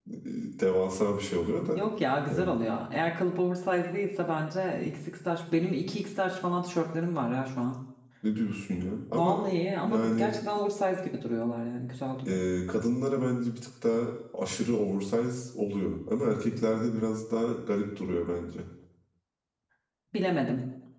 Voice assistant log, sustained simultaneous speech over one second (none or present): none